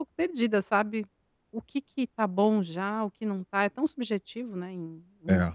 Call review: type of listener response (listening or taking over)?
taking over